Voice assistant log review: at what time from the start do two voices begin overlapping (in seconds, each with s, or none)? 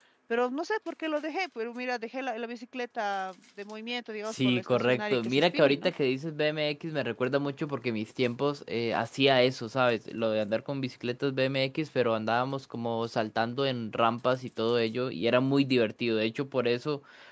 4.3 s